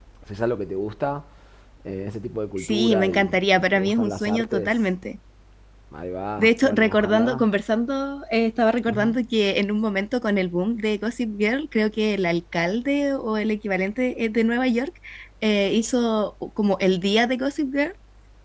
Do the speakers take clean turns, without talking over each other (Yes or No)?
No